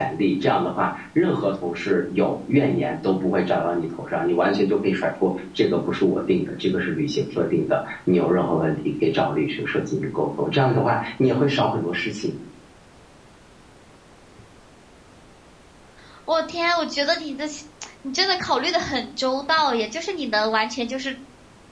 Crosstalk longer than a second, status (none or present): none